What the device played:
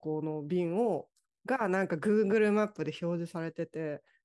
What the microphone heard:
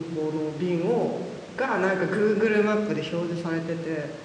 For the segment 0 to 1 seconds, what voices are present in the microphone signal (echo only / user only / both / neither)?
echo only